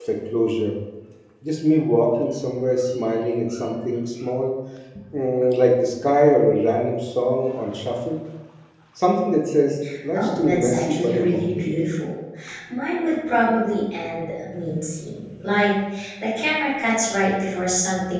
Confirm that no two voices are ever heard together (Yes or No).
No